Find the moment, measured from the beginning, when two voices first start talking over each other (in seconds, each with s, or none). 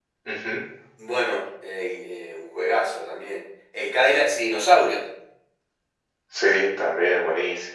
none